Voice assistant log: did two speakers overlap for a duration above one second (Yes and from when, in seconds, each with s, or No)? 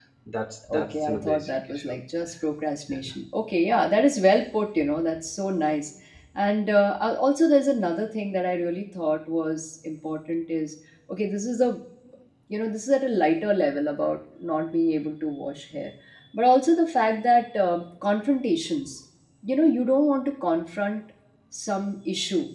Yes, from 0.7 s